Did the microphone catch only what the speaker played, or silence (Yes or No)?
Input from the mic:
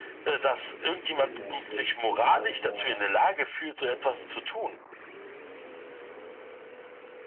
No